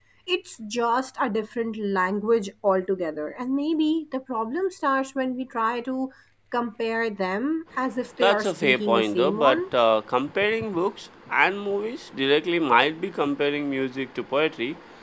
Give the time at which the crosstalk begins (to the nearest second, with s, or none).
8 s